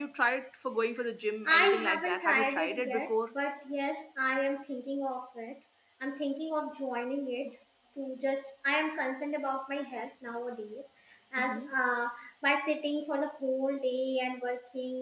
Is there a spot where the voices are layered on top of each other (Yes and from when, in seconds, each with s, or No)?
Yes, from 1.5 s